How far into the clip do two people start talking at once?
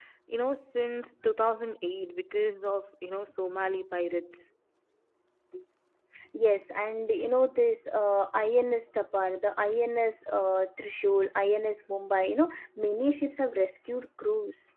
none

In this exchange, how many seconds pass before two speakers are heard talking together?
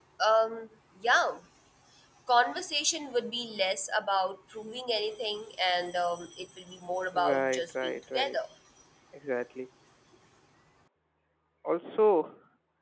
7.1 s

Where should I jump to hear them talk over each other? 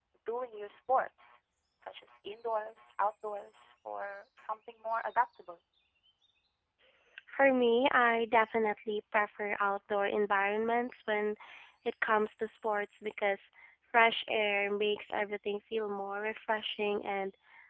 none

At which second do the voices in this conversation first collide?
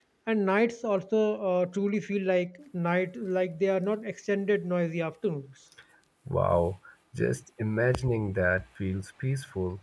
none

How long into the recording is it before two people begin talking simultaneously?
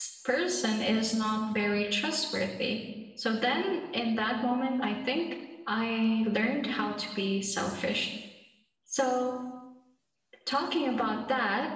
none

